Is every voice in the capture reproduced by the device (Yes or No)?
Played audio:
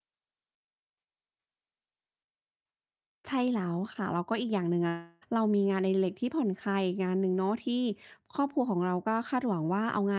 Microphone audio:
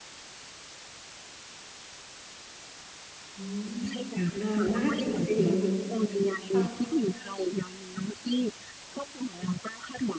No